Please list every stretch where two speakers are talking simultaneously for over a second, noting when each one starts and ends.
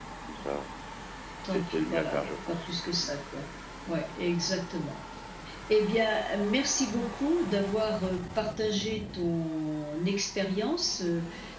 1.5-2.7

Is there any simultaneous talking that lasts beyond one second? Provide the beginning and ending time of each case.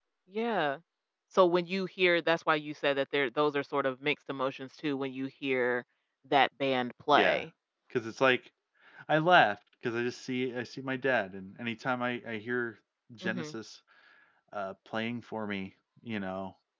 none

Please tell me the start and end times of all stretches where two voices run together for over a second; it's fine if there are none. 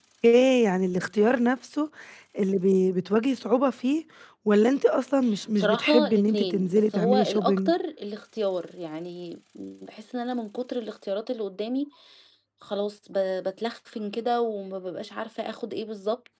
5.6-7.7

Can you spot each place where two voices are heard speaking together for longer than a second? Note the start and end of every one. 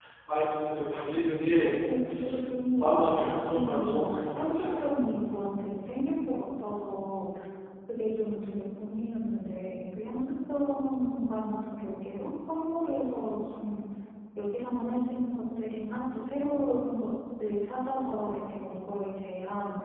2.8-4.7

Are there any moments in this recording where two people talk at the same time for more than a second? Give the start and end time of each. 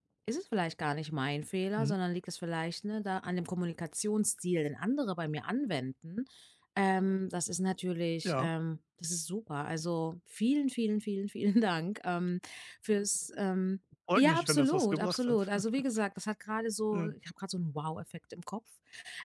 14.1-15.5

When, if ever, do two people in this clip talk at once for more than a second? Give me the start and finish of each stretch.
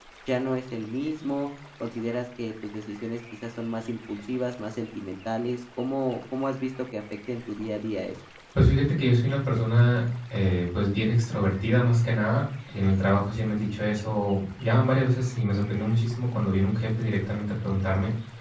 none

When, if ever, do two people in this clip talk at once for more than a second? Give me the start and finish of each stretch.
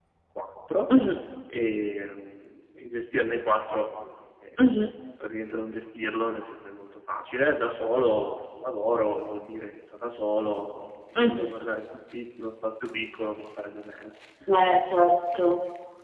none

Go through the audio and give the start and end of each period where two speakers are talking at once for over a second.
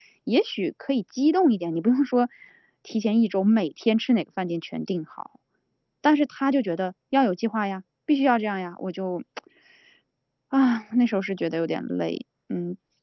none

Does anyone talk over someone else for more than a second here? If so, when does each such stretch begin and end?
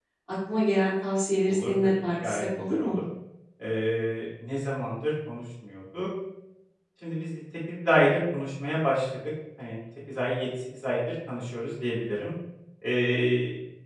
1.5-3.0

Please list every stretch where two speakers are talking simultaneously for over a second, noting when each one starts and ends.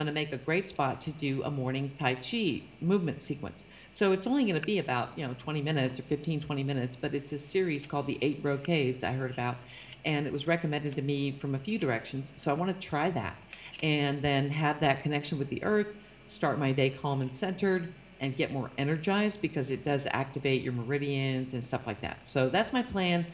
none

